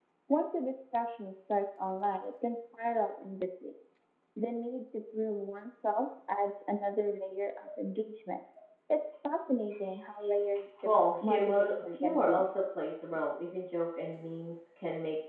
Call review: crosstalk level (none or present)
present